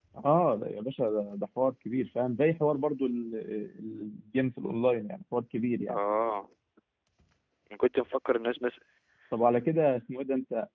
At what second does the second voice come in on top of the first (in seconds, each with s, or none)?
none